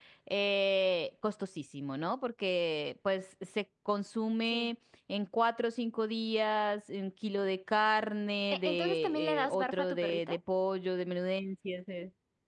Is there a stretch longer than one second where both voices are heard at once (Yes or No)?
Yes